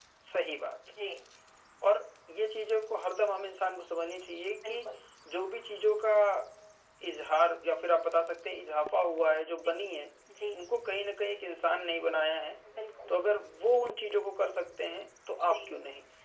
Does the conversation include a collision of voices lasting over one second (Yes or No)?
No